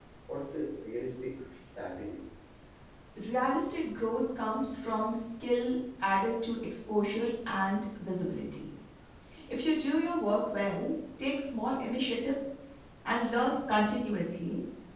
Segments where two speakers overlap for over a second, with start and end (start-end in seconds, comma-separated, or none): none